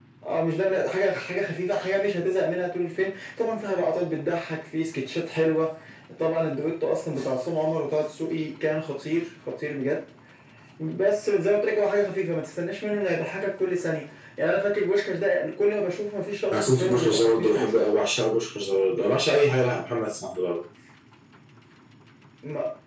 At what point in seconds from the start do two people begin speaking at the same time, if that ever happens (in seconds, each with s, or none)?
16.5 s